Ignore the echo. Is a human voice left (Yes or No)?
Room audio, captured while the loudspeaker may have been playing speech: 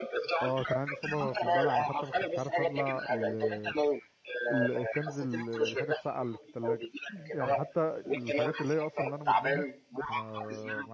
Yes